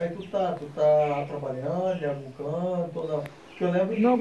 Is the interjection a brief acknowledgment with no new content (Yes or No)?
Yes